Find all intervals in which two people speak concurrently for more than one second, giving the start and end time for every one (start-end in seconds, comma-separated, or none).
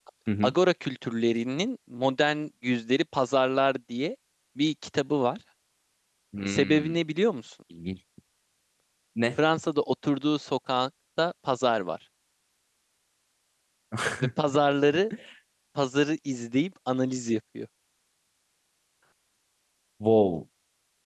none